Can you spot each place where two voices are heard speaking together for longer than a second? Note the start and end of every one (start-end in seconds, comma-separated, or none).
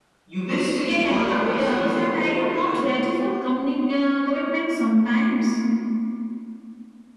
0.9-2.9